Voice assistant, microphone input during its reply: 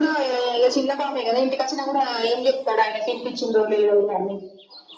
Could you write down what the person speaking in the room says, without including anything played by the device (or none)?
none